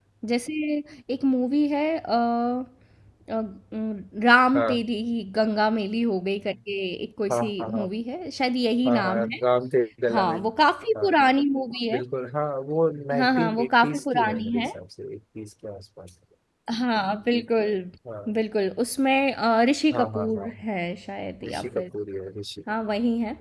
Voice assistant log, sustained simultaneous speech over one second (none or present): present